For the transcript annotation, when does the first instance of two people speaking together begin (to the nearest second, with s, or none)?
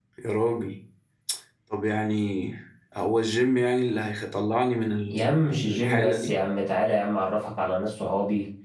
5 s